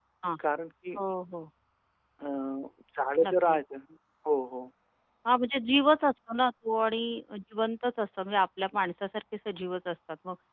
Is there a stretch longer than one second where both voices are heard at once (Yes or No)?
No